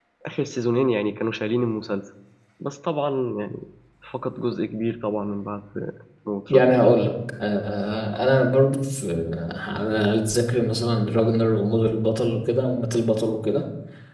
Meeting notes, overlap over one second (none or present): none